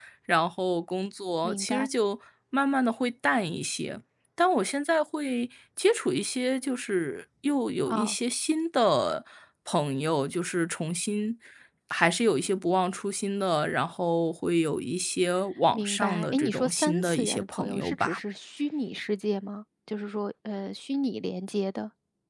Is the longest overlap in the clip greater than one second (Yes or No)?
Yes